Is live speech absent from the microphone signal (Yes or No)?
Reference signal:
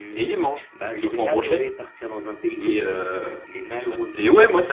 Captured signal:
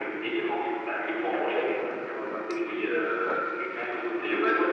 Yes